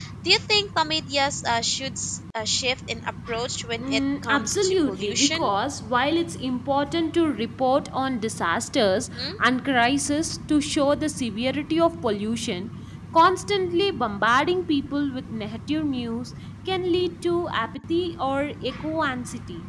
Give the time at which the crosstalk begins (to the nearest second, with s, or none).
4 s